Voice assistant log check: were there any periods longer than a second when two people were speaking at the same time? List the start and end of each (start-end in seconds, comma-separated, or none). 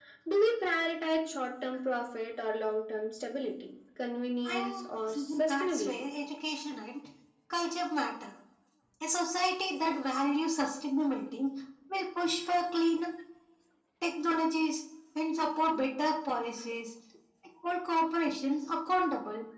4.5-6.1